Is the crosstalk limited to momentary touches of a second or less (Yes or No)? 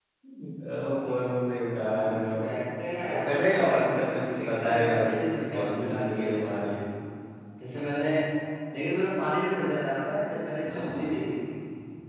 No